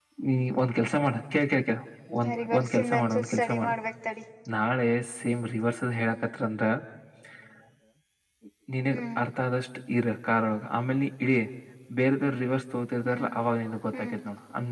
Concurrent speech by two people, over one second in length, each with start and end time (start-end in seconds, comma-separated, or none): 2.4-3.7